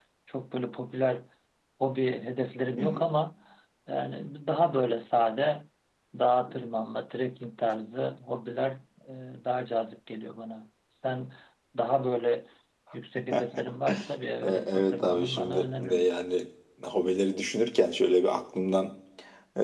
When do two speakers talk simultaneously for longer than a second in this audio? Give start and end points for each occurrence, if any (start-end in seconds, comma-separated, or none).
14.4-16.1